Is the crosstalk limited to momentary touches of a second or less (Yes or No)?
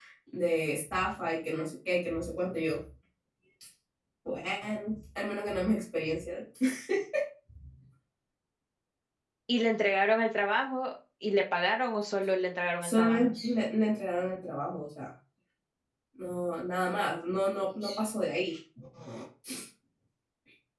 Yes